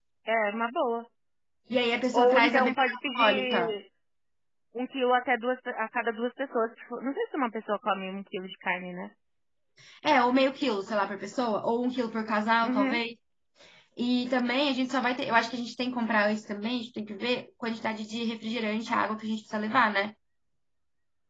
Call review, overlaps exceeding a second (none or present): present